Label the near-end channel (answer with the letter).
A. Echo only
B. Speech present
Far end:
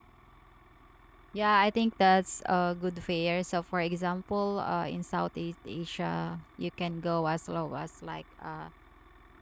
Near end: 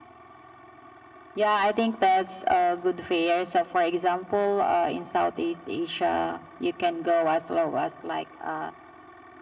A